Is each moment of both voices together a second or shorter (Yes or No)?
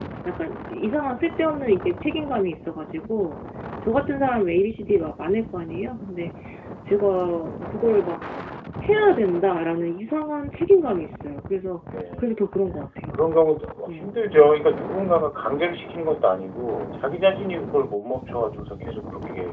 Yes